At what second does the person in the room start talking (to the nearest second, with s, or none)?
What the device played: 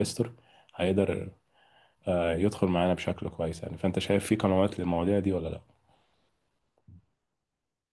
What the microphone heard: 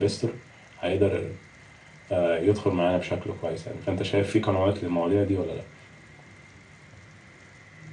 none